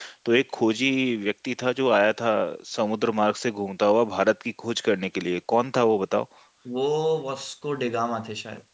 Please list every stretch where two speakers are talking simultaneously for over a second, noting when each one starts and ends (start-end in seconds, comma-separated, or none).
none